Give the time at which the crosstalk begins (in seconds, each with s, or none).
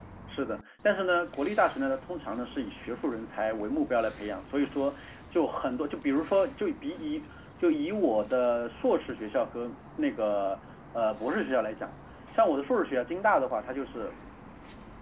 none